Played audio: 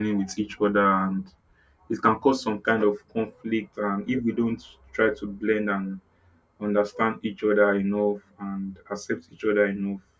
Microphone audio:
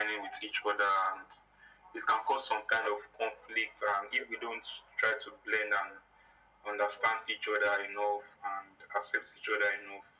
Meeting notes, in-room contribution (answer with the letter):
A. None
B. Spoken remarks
A